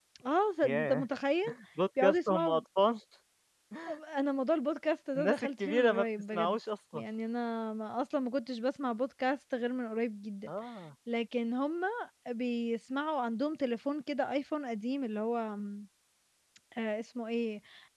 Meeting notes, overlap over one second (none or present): present